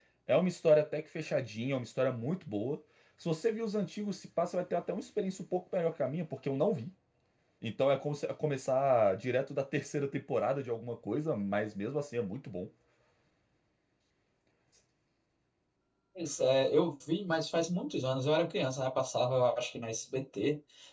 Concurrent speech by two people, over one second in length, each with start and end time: none

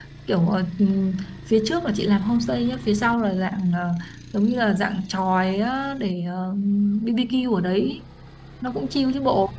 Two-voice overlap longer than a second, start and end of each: none

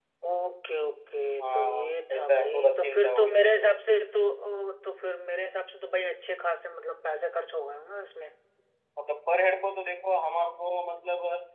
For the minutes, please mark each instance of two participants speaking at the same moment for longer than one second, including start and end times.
1.4-3.5

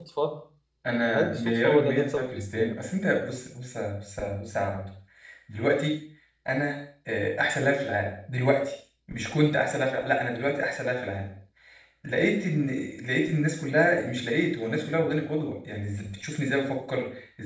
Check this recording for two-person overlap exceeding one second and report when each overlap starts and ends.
1.1-2.8

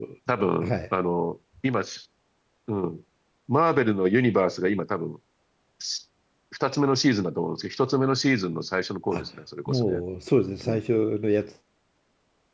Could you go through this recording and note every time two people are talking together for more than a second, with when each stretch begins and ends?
none

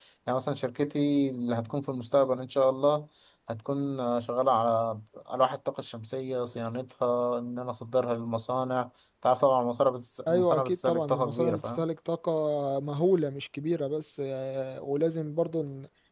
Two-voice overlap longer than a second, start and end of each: 10.3-11.8

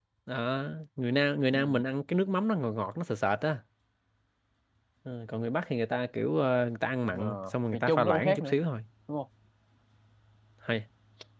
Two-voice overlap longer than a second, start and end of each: 7.1-8.5

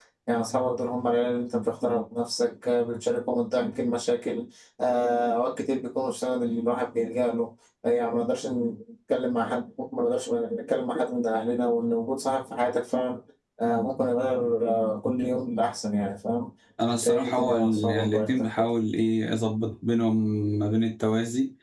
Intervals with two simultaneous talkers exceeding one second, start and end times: 16.9-18.7

